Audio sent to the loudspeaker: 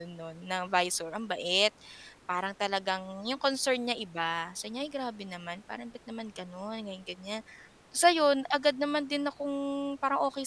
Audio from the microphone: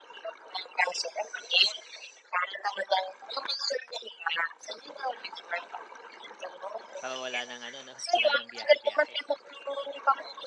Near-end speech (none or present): present